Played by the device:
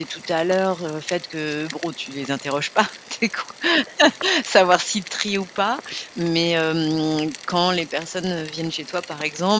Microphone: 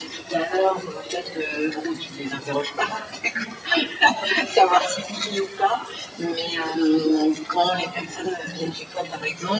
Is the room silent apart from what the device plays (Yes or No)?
Yes